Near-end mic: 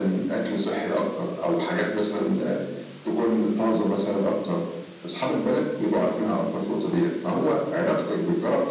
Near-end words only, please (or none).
none